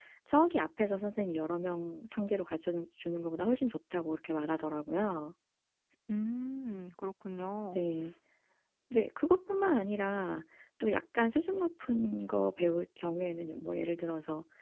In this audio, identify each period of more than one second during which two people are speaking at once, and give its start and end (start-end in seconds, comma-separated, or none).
none